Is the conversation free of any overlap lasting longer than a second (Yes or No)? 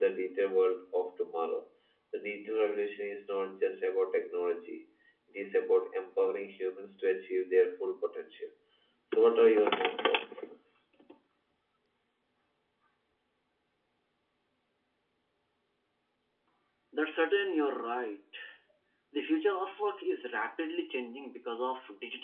Yes